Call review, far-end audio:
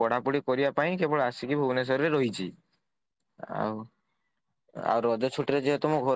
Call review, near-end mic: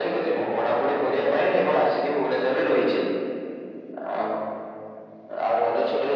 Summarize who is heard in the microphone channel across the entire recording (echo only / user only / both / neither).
echo only